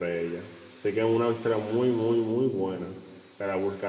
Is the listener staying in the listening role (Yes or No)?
Yes